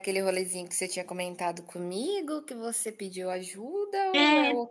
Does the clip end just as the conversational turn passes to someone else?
Yes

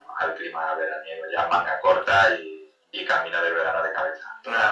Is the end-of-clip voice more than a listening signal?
Yes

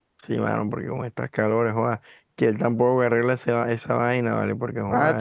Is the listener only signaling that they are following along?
No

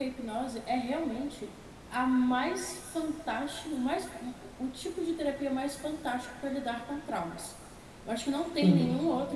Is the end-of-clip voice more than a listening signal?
No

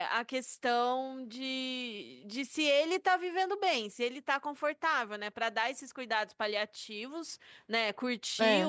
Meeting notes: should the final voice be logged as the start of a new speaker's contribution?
No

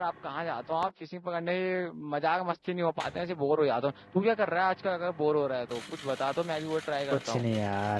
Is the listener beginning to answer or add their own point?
Yes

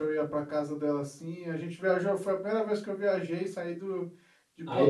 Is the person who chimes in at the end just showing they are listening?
No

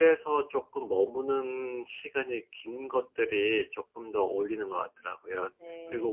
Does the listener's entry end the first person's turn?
No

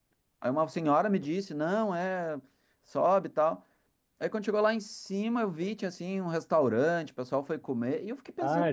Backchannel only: No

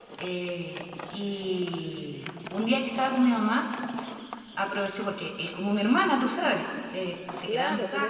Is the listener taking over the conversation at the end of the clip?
Yes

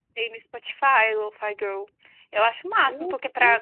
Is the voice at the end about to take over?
No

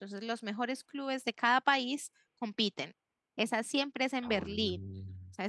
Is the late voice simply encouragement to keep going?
Yes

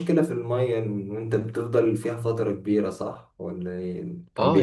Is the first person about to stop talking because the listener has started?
Yes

